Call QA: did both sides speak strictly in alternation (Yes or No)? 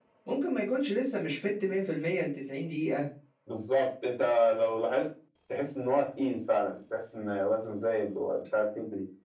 Yes